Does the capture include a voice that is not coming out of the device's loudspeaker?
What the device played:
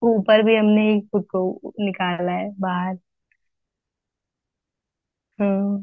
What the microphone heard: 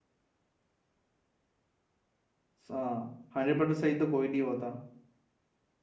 Yes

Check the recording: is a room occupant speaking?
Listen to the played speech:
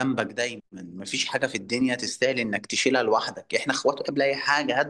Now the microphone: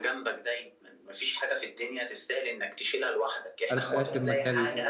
Yes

